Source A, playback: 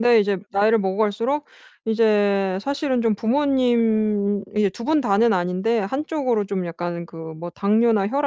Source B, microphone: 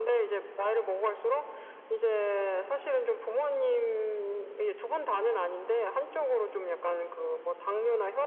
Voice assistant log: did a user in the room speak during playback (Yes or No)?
No